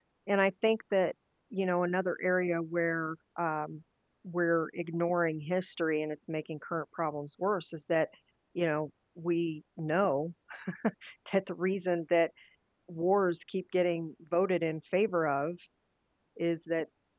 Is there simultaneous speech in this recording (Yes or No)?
No